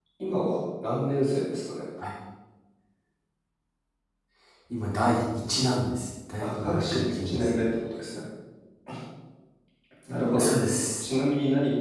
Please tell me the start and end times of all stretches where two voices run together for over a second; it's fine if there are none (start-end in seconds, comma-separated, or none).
6.4-7.7